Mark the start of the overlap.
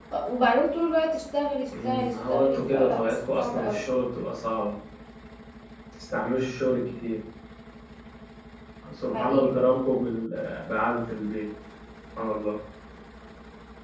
1.8 s

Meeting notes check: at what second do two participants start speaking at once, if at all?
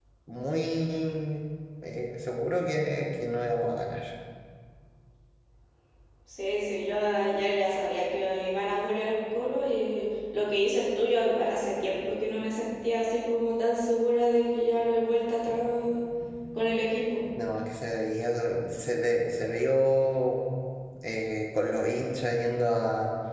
none

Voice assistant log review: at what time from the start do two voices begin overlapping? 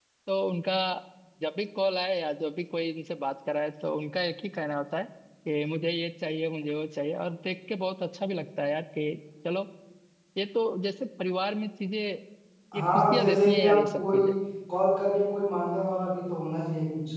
12.8 s

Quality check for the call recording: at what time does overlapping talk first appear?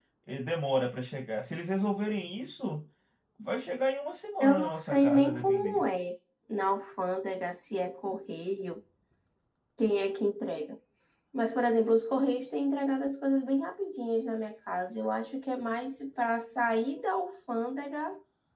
4.4 s

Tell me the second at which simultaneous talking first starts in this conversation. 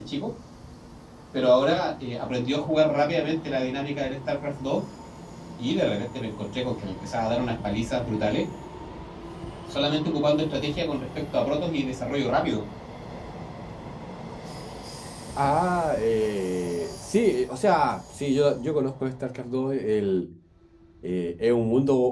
none

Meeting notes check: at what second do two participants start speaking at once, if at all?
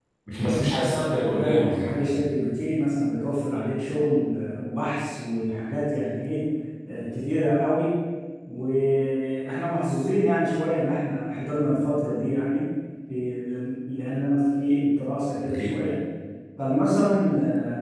1.0 s

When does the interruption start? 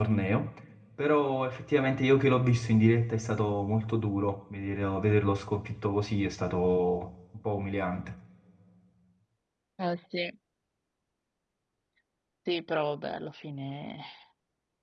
none

